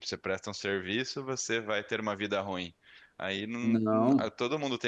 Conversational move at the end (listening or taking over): listening